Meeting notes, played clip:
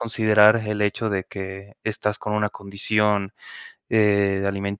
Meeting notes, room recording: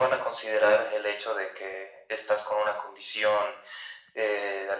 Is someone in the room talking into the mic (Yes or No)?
No